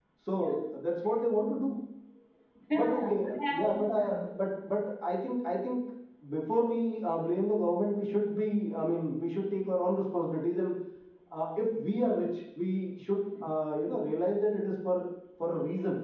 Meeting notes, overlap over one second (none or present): present